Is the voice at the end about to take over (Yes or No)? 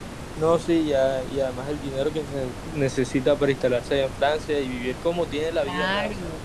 Yes